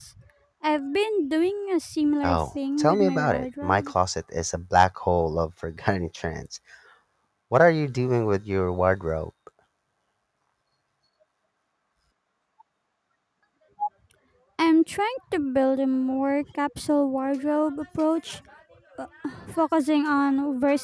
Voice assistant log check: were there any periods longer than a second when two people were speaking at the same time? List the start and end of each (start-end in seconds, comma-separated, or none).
2.2-3.9